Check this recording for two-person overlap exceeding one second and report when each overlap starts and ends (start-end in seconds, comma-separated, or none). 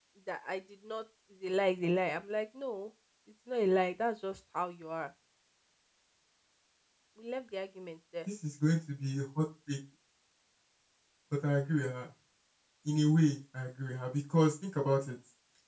none